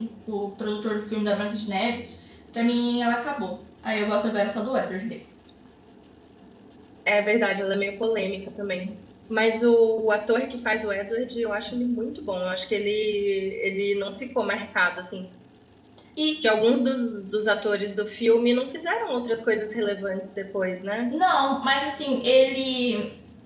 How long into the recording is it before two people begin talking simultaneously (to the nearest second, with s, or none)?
none